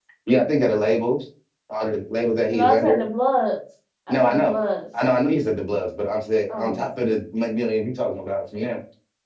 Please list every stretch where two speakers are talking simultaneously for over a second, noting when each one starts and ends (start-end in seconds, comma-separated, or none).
none